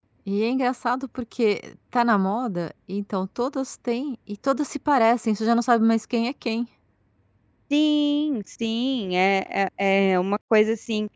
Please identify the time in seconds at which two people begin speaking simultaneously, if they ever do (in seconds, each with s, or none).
none